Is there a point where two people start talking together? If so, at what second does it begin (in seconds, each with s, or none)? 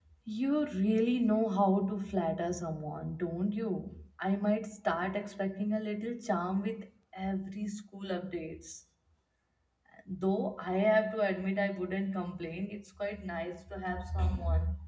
none